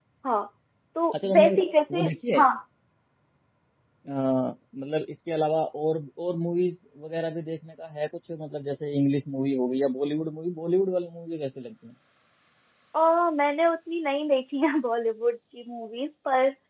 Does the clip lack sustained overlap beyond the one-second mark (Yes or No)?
Yes